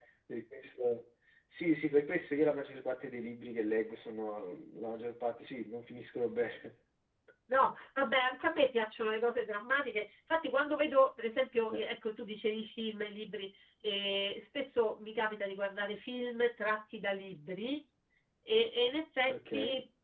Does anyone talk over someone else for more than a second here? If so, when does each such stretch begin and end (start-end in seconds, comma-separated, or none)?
none